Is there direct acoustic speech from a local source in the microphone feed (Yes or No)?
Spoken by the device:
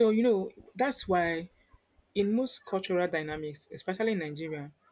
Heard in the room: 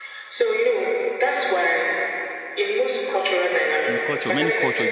Yes